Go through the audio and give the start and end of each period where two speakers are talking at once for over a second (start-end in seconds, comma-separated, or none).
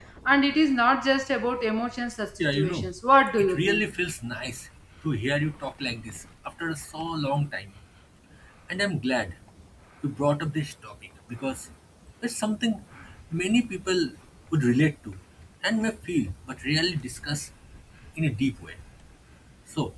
none